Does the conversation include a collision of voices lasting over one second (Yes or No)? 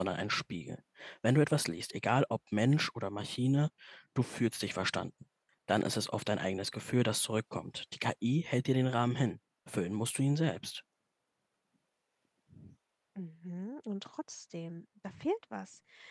No